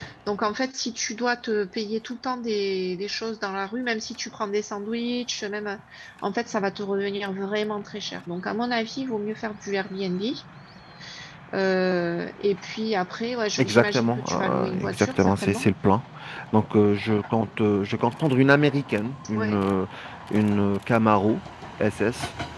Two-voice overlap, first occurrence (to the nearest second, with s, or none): 14 s